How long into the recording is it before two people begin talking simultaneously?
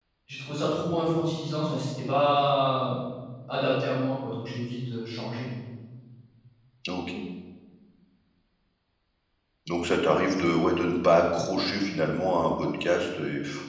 none

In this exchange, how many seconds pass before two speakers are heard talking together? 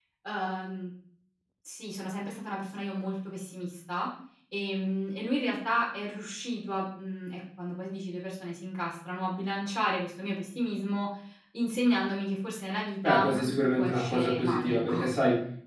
13.0 s

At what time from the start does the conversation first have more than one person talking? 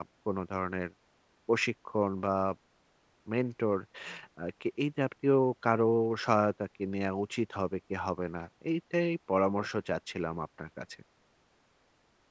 none

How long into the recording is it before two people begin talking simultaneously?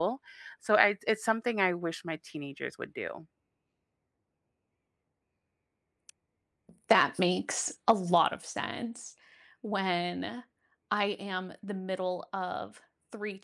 none

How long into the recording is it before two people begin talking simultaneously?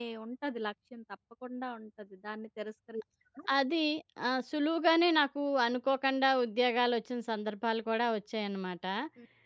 none

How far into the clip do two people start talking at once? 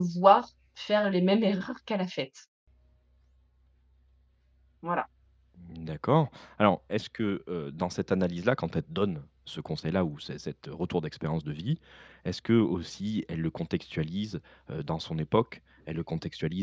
none

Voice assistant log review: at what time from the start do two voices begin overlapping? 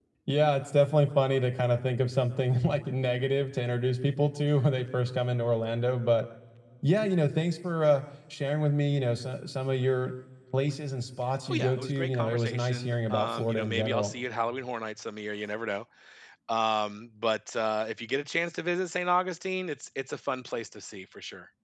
11.5 s

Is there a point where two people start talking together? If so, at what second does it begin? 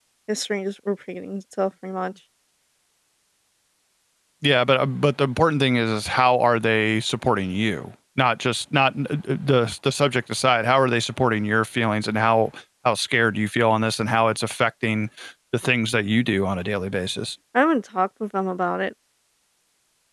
none

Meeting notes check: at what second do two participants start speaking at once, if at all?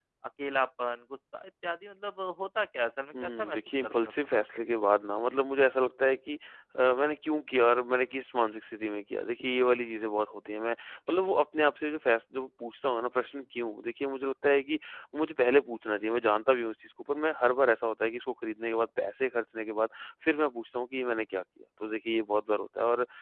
3.1 s

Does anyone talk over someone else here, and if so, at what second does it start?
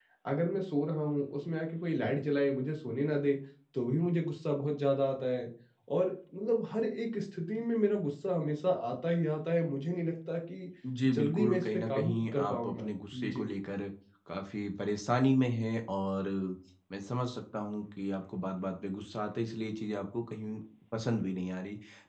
10.8 s

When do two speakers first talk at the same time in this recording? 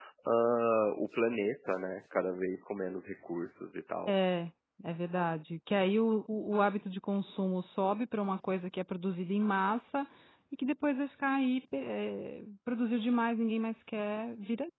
none

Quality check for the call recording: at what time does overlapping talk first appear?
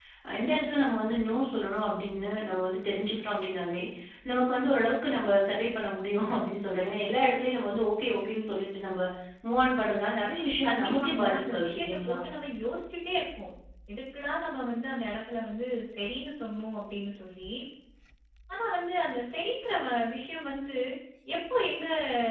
10.6 s

